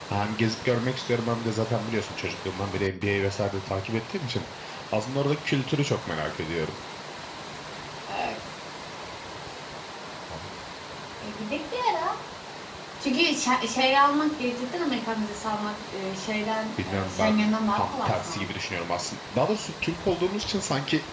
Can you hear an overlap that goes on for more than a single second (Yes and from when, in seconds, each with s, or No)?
Yes, from 16.8 s